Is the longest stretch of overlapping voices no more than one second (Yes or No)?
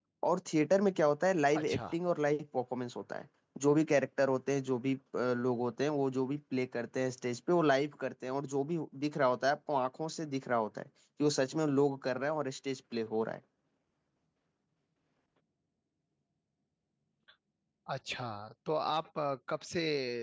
Yes